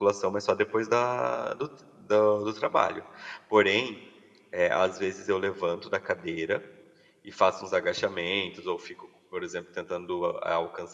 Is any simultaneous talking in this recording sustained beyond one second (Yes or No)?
No